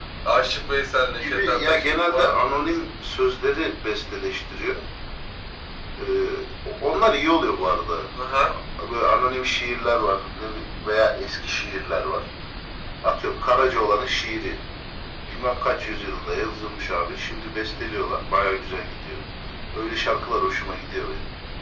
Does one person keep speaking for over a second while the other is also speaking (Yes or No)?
Yes